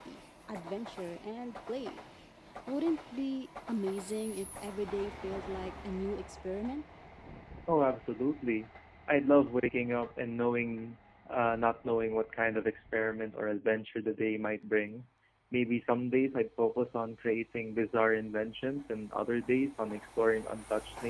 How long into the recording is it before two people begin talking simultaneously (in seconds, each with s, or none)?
none